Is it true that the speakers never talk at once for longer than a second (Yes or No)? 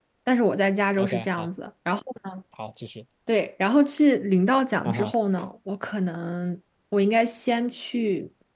Yes